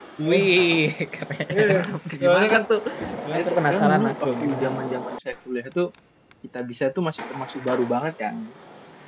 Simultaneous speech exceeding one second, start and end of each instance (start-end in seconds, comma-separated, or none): 3.3-4.7